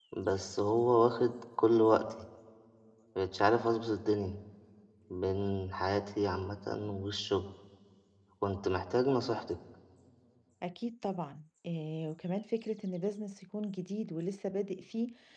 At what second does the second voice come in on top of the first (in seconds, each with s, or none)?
none